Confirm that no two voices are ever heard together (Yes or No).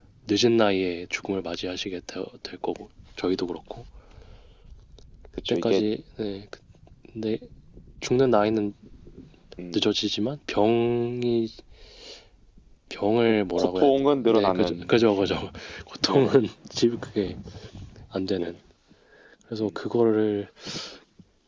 No